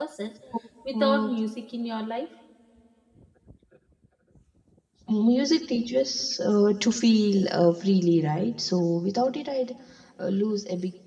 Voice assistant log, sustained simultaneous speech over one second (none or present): none